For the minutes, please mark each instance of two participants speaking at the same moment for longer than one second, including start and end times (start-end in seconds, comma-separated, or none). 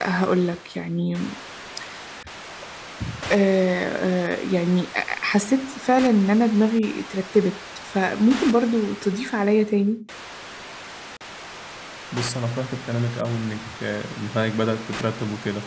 none